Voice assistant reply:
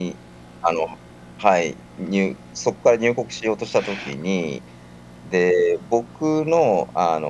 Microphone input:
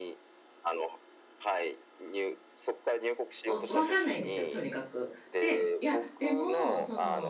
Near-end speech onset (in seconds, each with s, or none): 3.4 s